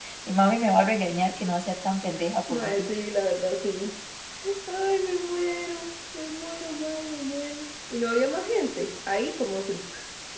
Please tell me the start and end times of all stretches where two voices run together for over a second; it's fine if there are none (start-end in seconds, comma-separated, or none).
none